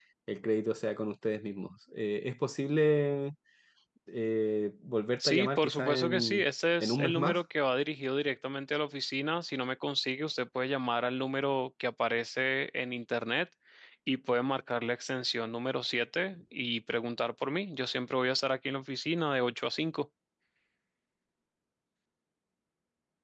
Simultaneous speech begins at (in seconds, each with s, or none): 5.2 s